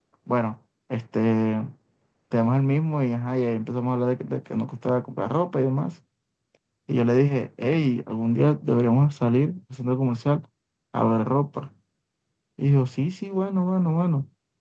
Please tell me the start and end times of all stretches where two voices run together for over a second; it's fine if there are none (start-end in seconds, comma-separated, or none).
none